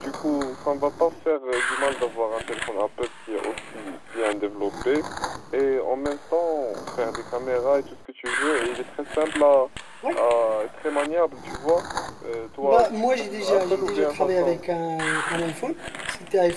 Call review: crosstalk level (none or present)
present